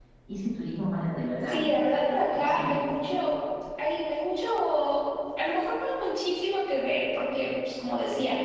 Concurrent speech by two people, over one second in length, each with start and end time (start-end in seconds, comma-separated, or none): 1.5-2.7